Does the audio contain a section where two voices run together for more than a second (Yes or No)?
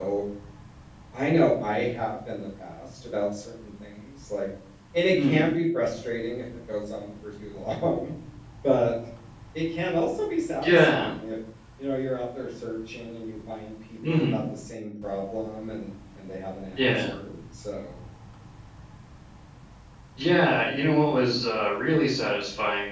No